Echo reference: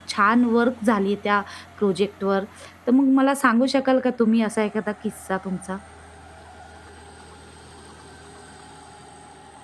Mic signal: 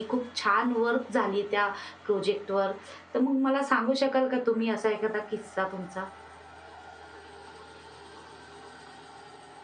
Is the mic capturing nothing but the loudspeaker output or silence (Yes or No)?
Yes